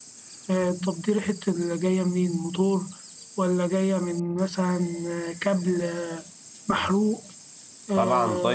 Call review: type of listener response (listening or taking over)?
taking over